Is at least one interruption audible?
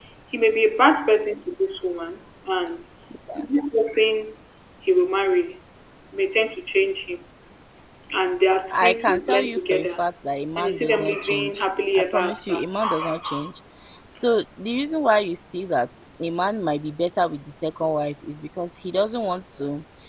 Yes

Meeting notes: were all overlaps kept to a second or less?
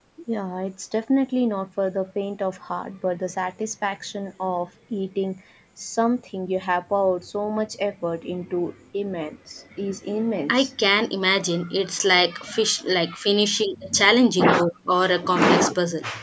Yes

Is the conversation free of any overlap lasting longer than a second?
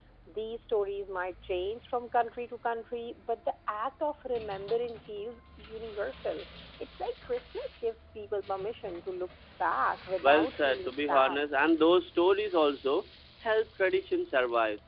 No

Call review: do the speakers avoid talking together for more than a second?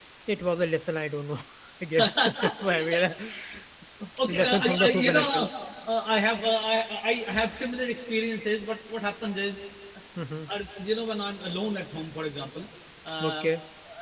No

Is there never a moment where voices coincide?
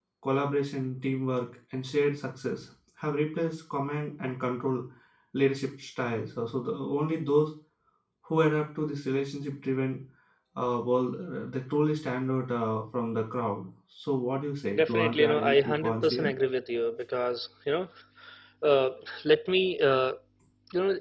No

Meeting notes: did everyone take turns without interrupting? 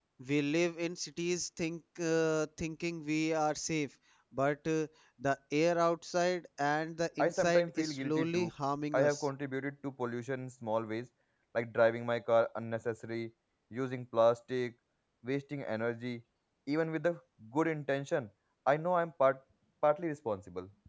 No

